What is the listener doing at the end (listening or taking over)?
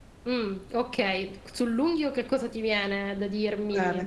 taking over